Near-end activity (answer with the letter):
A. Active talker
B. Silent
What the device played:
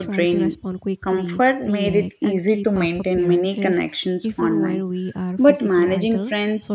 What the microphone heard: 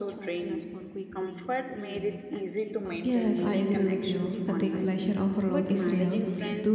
A